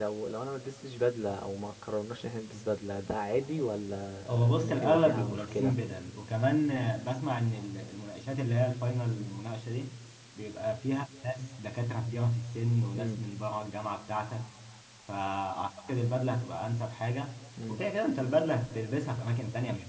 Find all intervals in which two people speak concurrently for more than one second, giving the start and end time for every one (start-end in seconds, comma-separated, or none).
4.3-5.8